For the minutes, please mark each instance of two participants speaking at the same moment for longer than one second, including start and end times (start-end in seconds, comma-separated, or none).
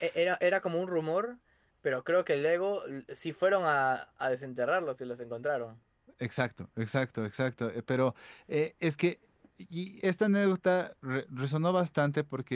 none